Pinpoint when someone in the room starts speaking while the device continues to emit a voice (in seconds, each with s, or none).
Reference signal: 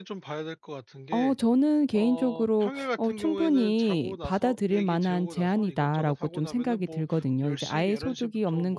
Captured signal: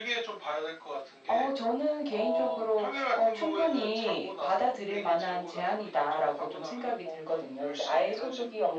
none